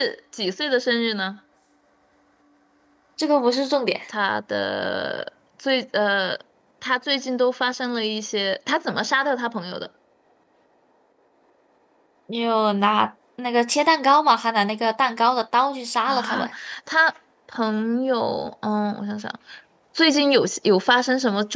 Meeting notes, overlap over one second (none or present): none